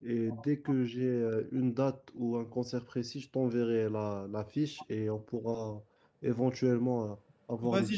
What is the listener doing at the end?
taking over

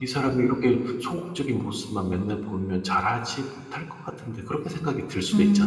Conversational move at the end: taking over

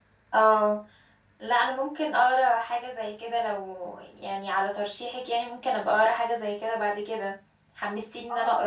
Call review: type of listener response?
taking over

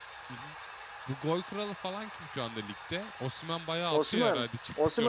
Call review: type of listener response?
taking over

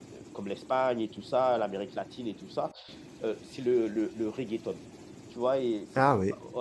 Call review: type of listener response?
listening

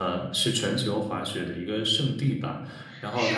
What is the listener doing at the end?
taking over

